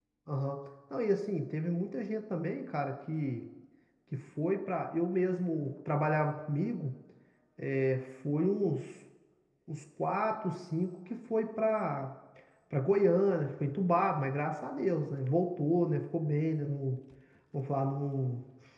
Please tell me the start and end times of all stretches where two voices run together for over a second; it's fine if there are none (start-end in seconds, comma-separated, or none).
none